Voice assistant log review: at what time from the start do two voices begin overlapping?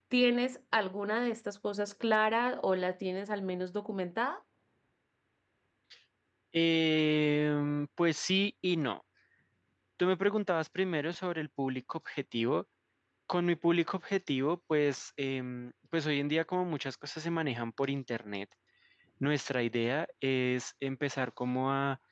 none

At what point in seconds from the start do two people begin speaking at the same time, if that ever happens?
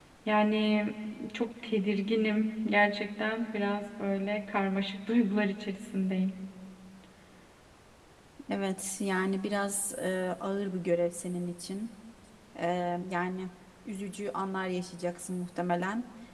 none

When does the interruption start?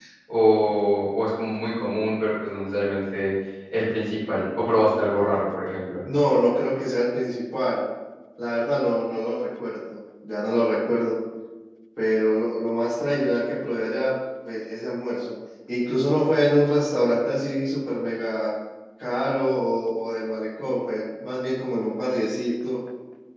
none

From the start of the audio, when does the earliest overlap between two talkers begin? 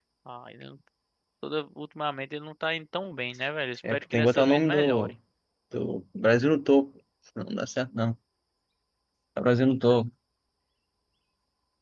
3.8 s

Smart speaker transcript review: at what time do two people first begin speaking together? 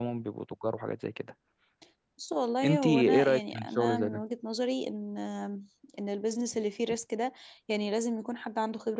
2.6 s

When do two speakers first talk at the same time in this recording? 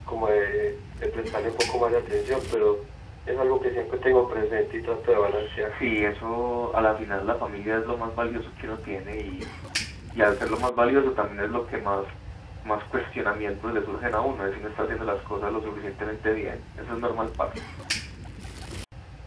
none

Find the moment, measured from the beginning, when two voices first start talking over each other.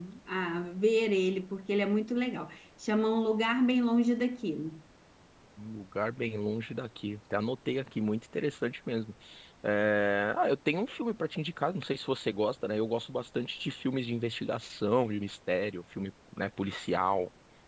none

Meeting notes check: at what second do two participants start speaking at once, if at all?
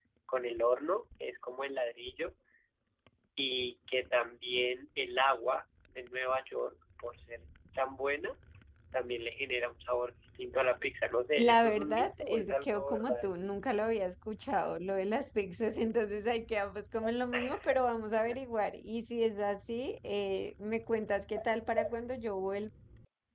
11.4 s

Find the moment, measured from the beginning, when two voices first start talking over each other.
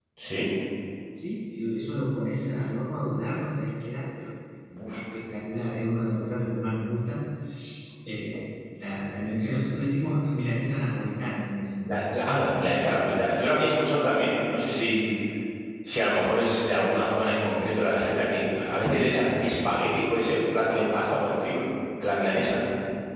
none

